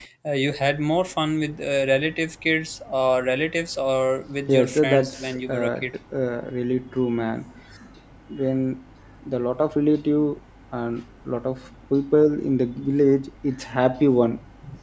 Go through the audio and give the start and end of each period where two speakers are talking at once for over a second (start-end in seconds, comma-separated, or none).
4.5-5.8